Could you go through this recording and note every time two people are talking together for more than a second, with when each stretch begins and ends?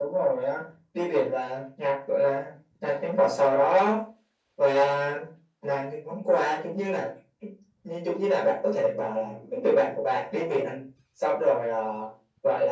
none

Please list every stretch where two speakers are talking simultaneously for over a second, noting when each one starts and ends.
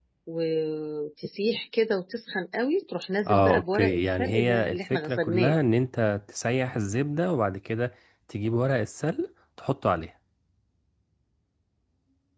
3.3-5.6

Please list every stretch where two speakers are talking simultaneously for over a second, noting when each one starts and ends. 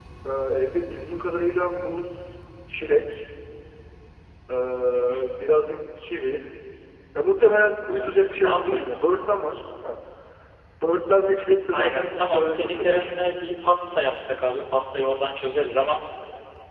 11.7-13.1

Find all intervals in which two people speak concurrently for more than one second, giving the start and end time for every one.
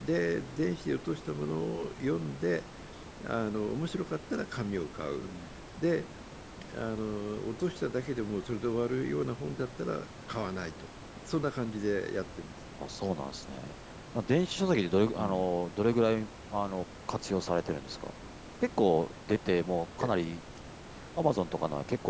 none

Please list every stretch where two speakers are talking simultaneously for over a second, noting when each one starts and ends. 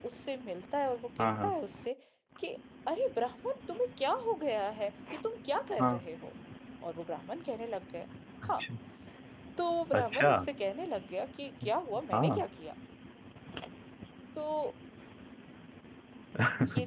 none

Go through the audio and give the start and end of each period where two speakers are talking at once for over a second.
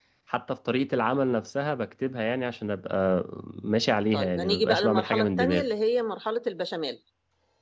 4.1-5.7

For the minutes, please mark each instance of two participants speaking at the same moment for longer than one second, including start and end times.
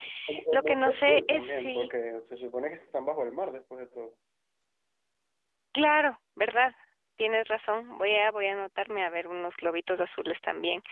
0.5-1.9

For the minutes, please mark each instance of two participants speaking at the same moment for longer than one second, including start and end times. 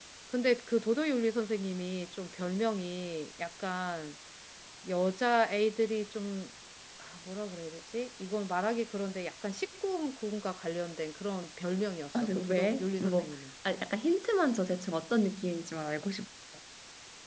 12.1-13.3

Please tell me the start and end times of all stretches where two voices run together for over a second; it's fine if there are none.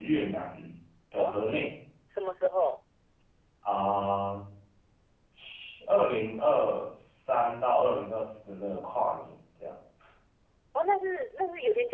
none

